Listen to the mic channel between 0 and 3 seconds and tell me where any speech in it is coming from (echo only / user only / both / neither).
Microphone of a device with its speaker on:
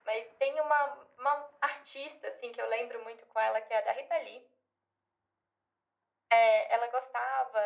echo only